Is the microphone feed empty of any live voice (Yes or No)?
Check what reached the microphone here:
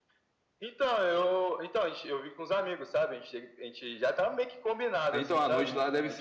No